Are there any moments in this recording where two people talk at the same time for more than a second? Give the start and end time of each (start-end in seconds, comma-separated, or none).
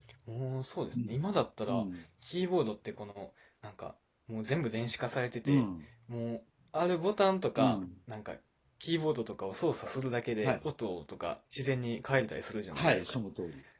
none